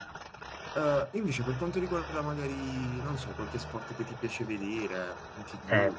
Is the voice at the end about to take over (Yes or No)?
Yes